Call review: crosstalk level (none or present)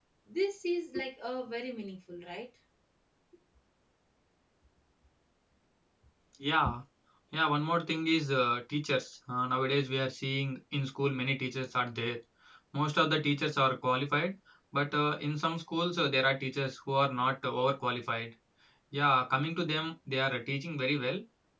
none